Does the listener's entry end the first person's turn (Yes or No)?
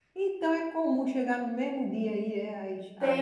Yes